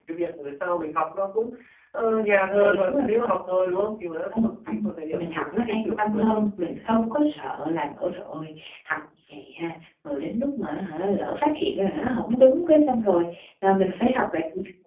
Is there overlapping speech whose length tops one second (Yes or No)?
Yes